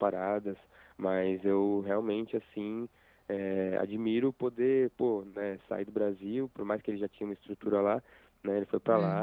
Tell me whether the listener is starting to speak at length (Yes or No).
No